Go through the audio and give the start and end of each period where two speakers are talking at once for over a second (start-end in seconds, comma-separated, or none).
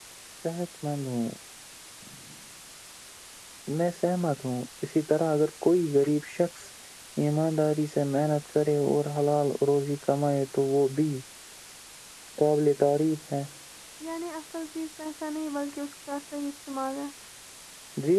none